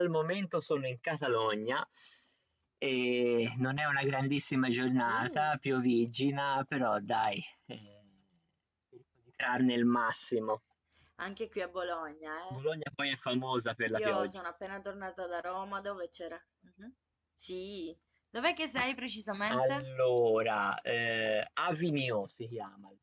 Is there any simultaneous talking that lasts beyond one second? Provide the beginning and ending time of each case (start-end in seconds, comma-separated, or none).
none